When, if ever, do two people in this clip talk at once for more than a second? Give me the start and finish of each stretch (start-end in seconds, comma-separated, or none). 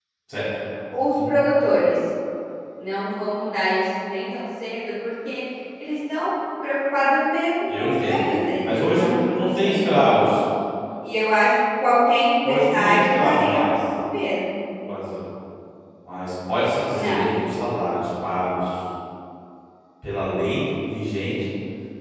8.6-10.1, 12.4-13.7